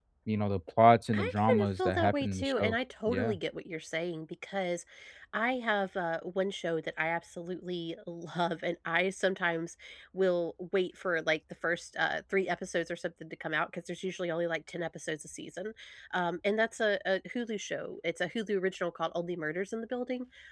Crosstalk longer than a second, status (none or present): present